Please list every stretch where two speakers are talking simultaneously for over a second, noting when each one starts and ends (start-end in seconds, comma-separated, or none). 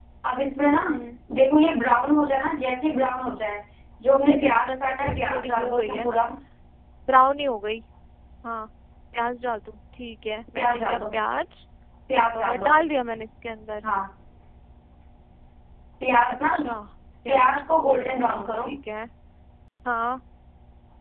4.2-6.1, 17.3-18.7